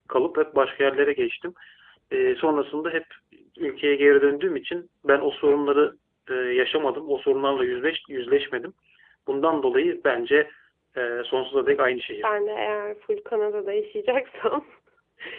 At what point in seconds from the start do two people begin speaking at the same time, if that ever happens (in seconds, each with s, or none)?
none